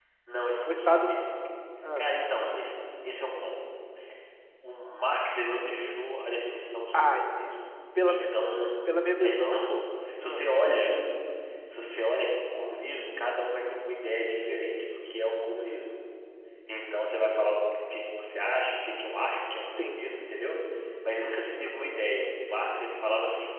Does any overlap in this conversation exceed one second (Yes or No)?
No